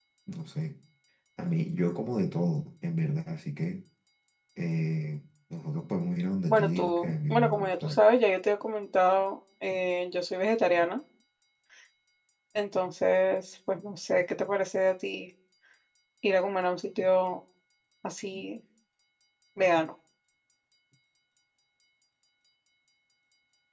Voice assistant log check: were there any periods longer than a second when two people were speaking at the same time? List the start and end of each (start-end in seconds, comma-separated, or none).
6.5-8.0